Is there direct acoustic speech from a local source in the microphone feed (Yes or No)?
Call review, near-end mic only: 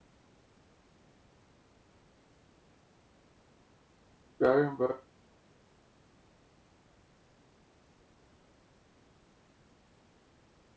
Yes